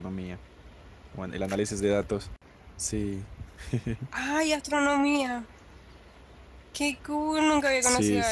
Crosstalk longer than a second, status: none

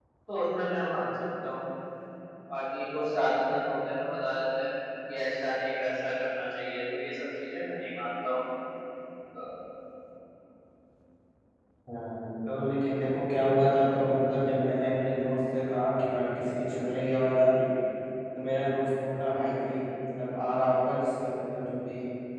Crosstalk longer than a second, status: none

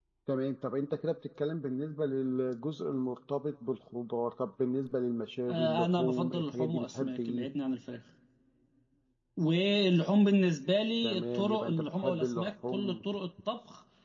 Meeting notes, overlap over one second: present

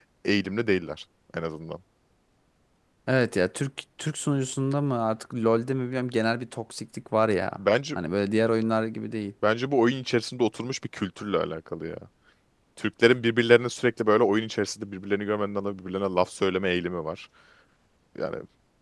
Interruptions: none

